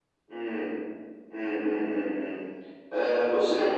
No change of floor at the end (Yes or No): Yes